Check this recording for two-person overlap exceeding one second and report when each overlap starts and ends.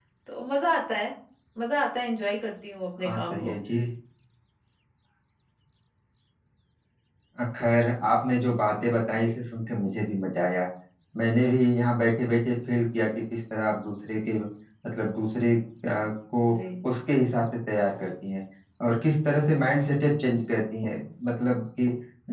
none

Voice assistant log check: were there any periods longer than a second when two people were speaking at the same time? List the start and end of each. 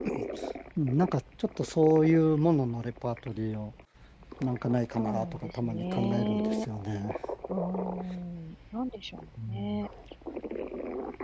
5.0-6.7

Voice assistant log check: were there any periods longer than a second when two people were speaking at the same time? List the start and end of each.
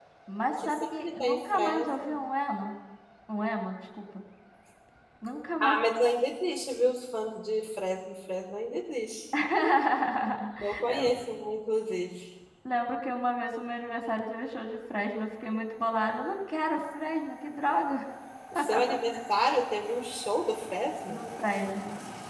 0.6-2.2

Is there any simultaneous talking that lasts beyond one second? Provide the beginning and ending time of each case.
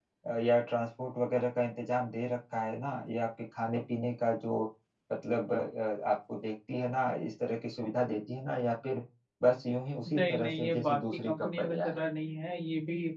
10.2-12.0

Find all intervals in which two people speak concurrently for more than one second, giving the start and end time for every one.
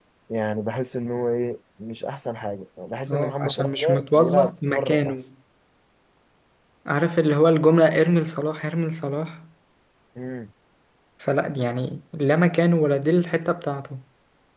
3.1-5.2

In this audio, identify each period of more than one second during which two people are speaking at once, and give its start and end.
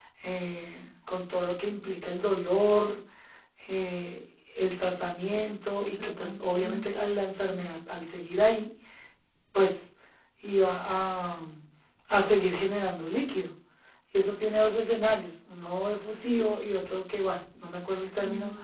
5.8-7.0

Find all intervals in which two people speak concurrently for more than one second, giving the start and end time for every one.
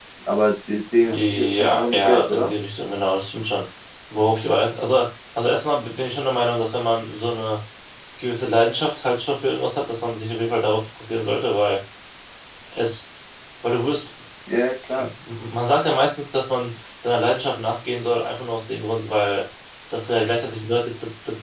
1.0-2.5

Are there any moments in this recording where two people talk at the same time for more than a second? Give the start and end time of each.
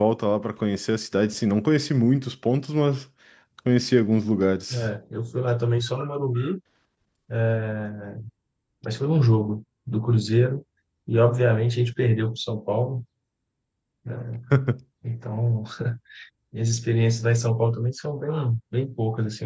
none

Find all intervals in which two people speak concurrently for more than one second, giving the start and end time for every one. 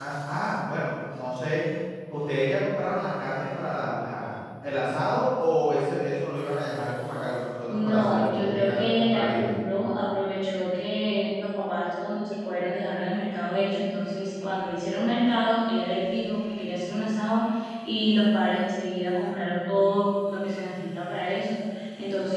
7.7-9.5

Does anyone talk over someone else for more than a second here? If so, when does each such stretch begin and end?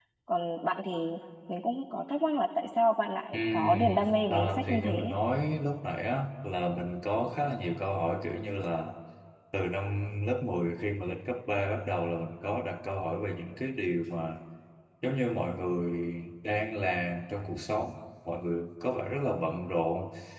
3.3-5.1

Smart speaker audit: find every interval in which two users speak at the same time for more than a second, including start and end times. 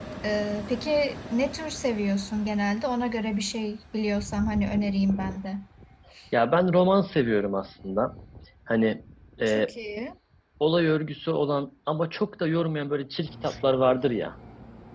none

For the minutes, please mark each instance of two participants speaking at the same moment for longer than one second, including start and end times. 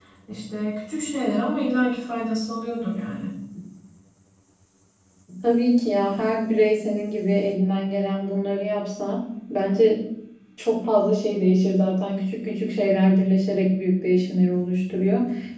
none

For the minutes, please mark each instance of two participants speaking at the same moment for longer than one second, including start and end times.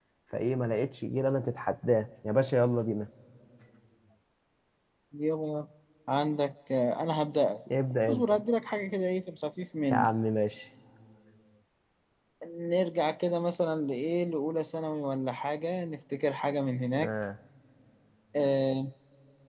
none

